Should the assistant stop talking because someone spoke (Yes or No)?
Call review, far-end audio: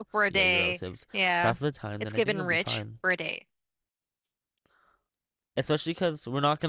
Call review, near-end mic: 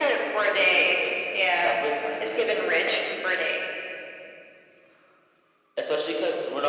No